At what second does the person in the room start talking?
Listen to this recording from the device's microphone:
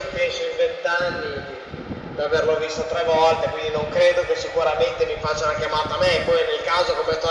none

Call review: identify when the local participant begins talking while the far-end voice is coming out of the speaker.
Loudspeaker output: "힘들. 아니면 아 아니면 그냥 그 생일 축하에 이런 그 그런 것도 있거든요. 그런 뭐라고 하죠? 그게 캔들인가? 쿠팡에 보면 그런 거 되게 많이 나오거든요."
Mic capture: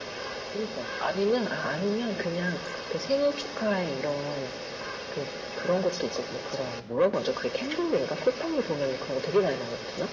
none

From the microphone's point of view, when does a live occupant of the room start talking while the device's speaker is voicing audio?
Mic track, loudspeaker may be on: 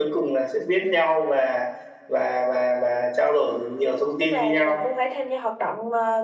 4.2 s

